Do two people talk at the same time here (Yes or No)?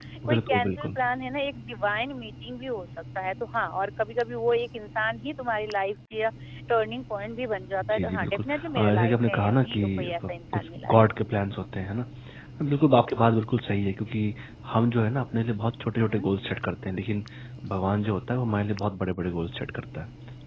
Yes